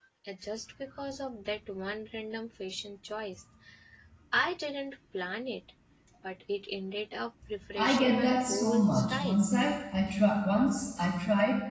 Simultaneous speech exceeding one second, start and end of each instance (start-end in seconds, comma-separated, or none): 7.8-9.4